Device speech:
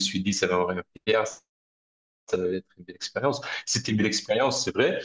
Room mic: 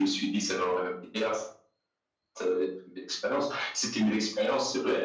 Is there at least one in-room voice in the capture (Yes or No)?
No